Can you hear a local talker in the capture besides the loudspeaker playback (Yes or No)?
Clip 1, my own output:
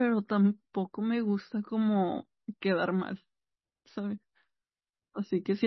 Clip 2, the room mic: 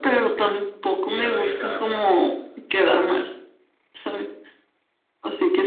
Yes